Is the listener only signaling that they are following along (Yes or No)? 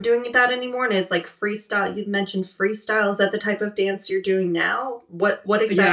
No